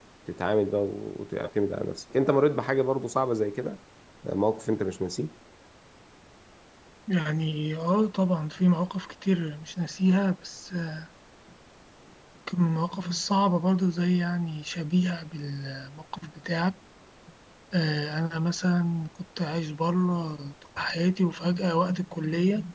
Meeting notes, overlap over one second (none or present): none